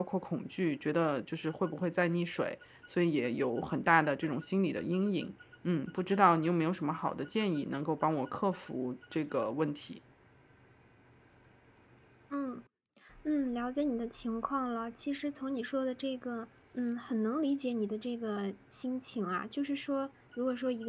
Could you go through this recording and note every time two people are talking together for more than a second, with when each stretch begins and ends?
none

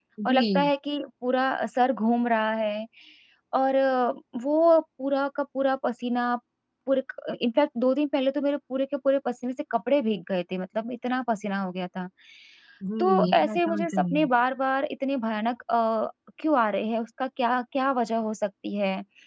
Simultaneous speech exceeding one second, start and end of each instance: 13.0-14.3

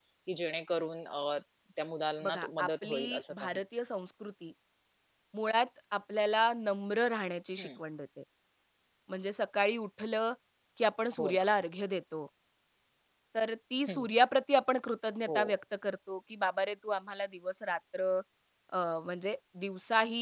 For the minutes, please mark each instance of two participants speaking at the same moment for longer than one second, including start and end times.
2.2-3.5

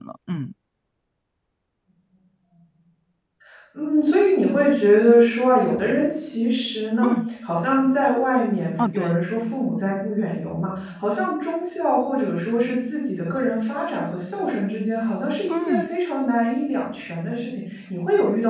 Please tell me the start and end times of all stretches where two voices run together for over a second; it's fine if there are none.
none

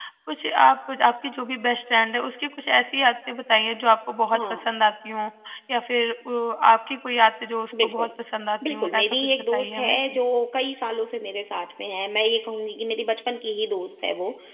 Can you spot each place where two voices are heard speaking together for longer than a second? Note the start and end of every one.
8.7-10.2

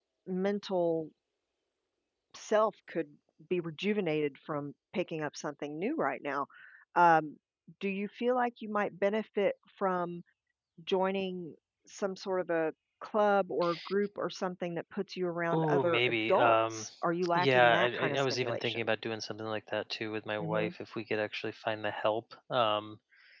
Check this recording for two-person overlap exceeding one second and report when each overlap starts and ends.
15.5-16.8, 17.4-18.9

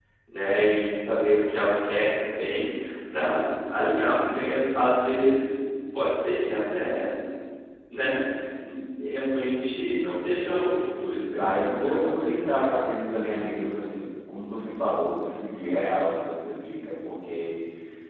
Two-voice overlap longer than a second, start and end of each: 11.4-12.9

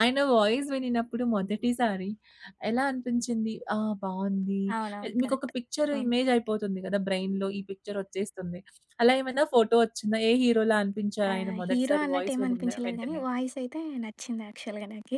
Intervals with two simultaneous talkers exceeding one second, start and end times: 11.3-13.2

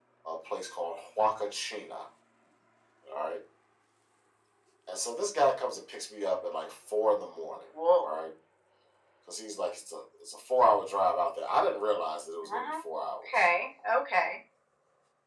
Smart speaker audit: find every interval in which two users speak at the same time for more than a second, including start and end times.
none

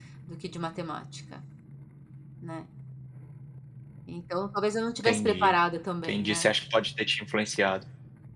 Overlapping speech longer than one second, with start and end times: none

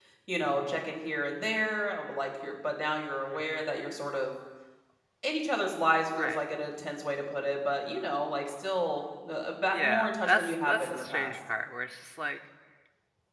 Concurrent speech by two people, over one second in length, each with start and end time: 9.7-11.4

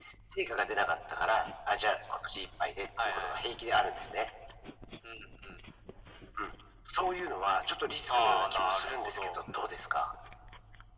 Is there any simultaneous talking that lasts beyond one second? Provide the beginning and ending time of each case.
8.1-10.1

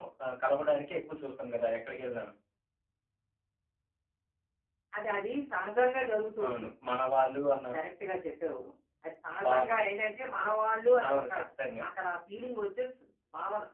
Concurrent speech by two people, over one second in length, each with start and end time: none

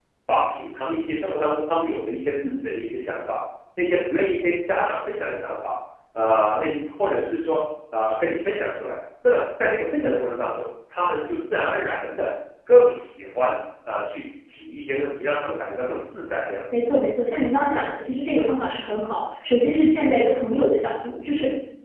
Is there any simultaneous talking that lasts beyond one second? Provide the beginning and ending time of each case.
none

